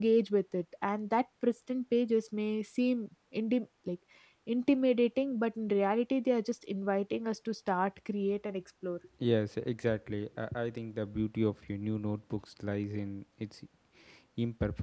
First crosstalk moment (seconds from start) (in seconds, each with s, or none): none